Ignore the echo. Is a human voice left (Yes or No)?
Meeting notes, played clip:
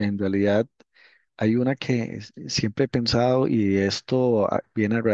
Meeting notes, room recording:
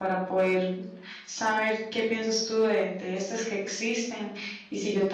Yes